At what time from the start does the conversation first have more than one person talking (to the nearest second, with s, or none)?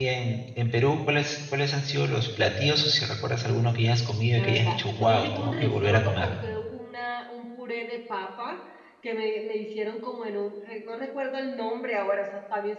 4 s